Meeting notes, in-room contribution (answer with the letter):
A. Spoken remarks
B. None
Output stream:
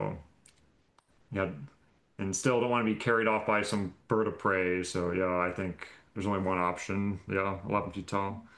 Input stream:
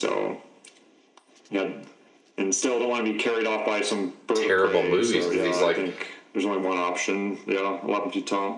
A